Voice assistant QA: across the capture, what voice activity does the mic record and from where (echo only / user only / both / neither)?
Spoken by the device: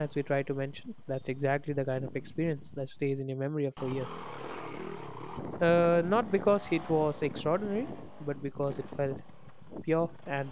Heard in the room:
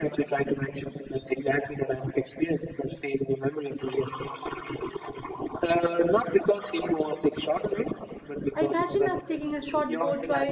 both